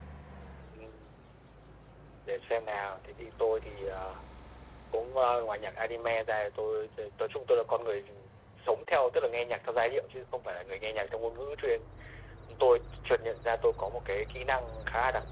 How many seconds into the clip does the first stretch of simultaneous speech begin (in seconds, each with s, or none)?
none